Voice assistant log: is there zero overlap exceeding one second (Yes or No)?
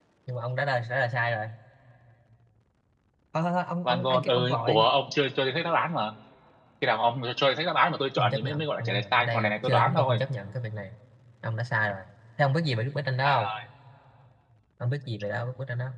No